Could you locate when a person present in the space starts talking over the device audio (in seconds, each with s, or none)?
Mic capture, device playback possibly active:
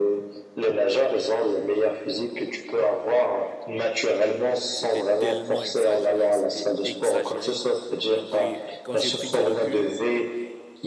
4.7 s